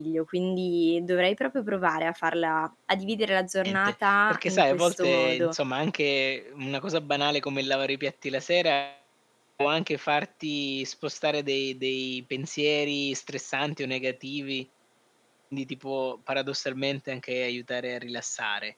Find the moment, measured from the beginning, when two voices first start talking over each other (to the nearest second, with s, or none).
4 s